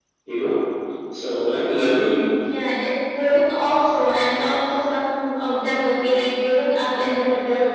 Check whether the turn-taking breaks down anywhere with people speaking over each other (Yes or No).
No